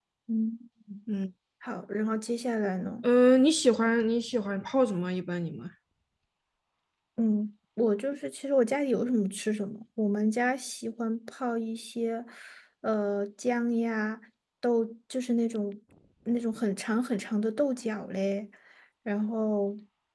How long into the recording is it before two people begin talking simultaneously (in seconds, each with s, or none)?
none